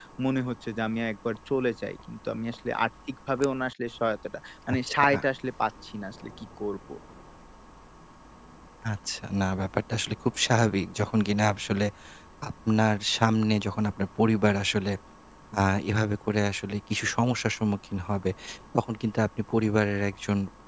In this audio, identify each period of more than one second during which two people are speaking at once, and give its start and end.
none

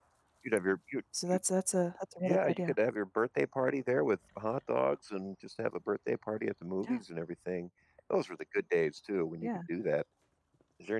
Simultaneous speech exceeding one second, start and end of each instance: none

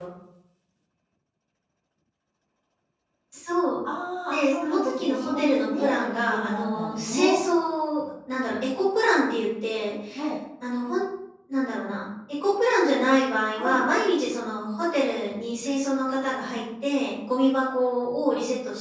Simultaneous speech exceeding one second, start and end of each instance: 4.3-7.4

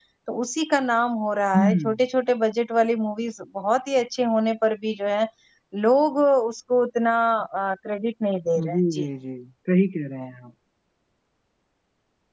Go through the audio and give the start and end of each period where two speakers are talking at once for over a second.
none

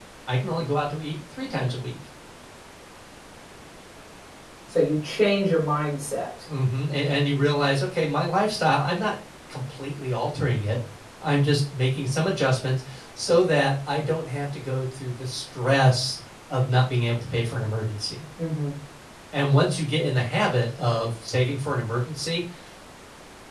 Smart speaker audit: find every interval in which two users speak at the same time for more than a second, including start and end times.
none

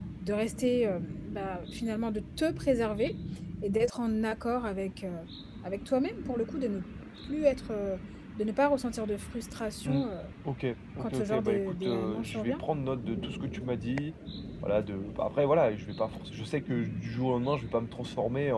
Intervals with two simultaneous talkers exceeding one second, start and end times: 11.0-12.6

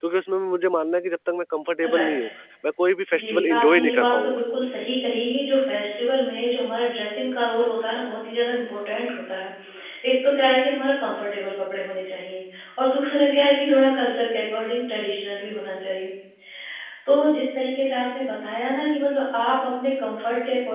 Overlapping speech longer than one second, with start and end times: 3.2-4.4

